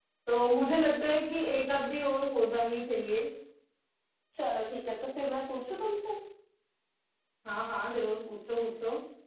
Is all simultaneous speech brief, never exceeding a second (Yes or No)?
Yes